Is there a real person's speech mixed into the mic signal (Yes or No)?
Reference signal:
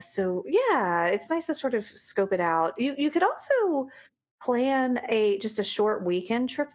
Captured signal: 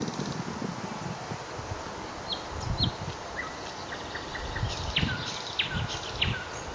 No